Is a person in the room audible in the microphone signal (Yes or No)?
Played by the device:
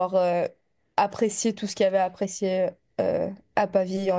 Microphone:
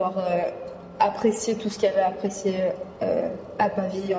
No